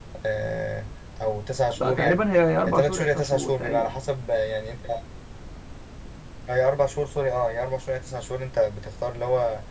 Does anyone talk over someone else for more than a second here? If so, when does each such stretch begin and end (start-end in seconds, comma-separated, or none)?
2.7-3.9